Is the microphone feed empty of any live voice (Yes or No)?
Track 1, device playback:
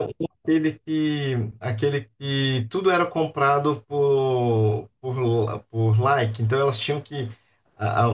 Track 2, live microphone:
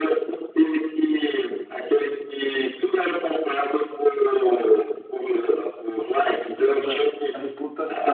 No